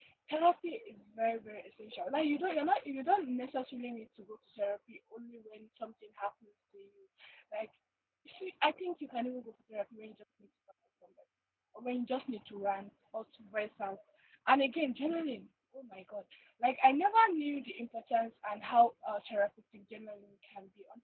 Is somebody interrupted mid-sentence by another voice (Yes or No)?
No